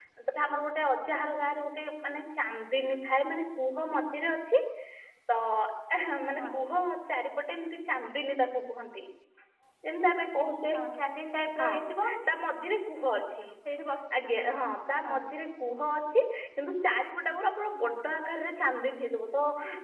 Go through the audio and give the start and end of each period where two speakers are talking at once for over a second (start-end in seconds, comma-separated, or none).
none